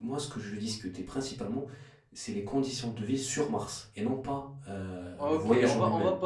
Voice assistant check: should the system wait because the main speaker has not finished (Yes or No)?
No